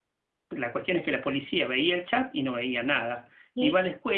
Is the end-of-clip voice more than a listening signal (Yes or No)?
No